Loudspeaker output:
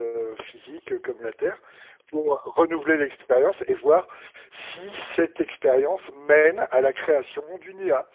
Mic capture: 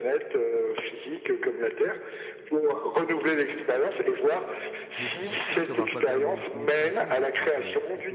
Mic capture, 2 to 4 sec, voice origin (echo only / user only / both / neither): echo only